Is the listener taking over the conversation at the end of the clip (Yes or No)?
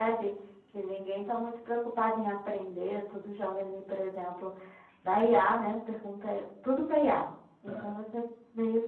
No